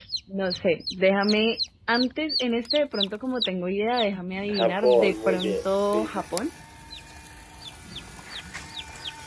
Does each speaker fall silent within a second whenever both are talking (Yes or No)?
No